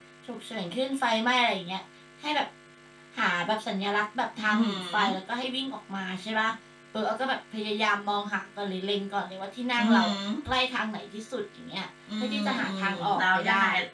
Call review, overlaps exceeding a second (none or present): present